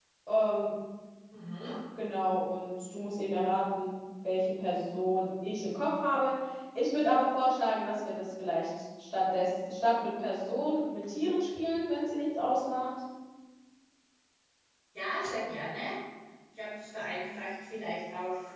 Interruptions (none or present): none